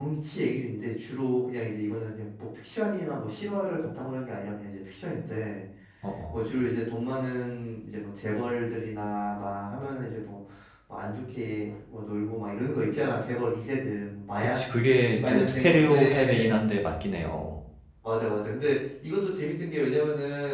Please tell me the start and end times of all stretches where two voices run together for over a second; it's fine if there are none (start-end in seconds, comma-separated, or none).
15.2-16.6